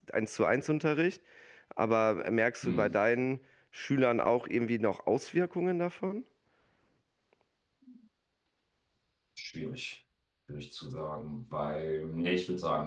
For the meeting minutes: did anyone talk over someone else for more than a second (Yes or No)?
No